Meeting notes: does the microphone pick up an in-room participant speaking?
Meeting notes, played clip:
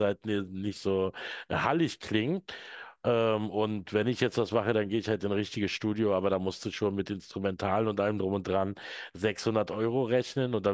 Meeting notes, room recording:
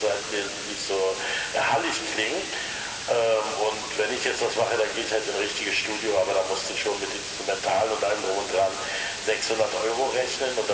No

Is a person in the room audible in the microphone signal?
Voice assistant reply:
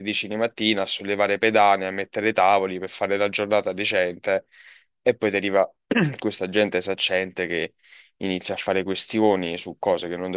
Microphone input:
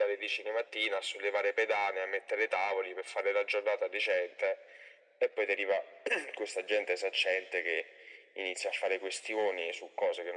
No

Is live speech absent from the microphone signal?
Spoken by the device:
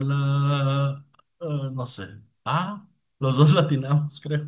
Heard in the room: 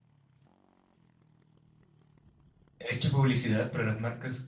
No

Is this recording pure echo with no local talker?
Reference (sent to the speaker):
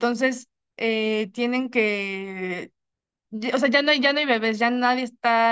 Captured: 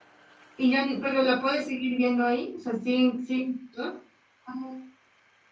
No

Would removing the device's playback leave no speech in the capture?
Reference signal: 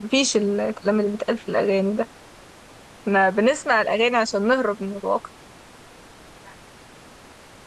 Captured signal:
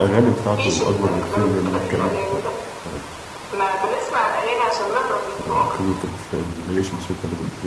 No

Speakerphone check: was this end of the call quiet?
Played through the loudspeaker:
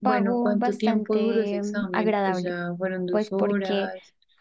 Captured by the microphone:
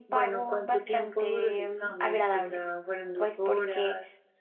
Yes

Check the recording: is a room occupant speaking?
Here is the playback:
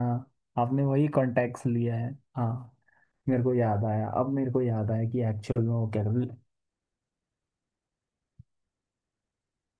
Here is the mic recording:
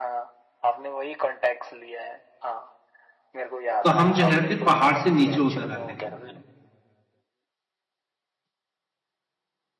Yes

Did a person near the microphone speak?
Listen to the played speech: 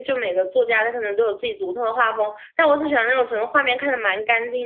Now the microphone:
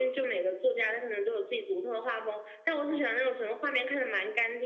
No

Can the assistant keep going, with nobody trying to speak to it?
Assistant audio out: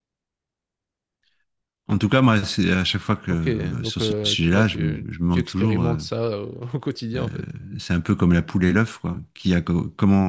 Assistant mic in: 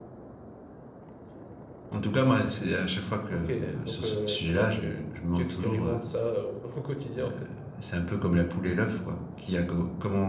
Yes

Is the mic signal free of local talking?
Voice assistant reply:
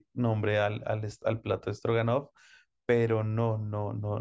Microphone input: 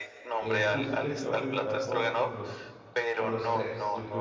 No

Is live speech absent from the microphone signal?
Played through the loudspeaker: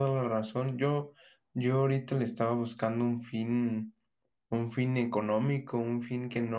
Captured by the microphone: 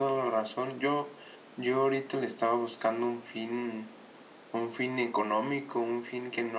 Yes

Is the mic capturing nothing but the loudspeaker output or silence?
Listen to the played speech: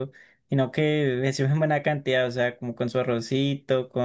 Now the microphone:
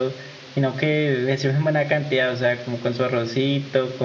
Yes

